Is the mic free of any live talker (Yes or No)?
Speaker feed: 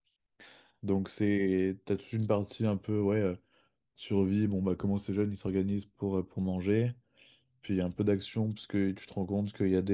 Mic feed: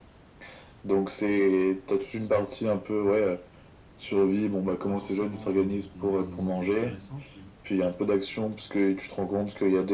No